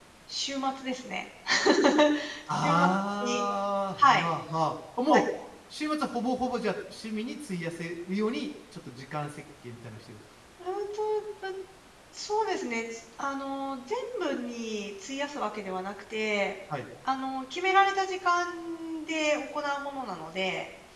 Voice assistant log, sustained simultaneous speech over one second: none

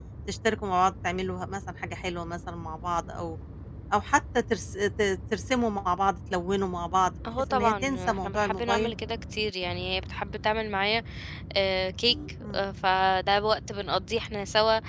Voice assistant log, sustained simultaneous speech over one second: present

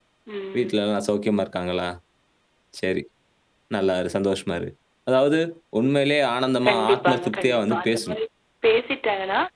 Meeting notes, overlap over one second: present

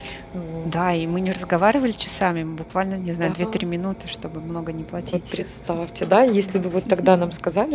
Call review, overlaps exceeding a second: none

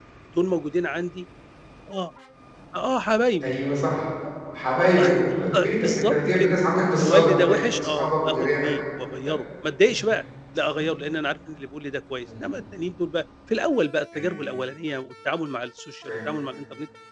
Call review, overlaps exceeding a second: present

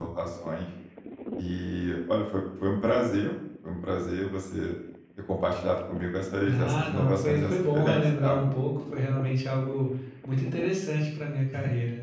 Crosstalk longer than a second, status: present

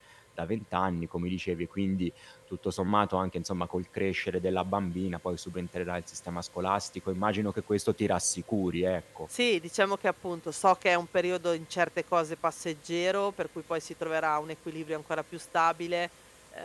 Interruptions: none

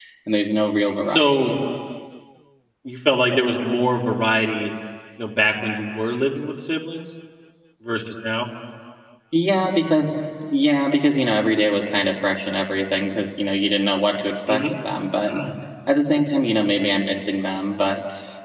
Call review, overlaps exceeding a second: none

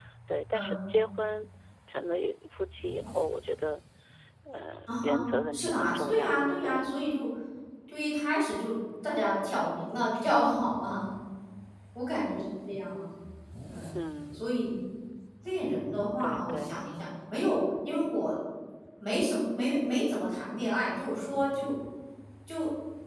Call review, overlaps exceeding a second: present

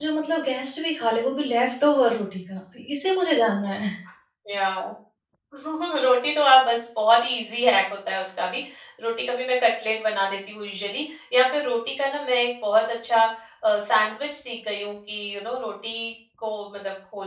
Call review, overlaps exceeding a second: none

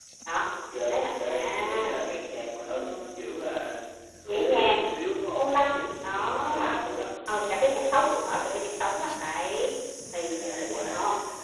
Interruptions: present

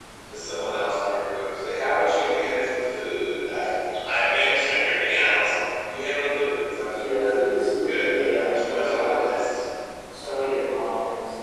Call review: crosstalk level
present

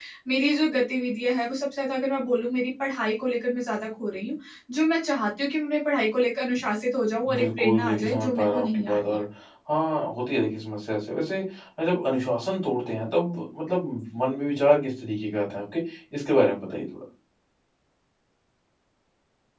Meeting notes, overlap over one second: present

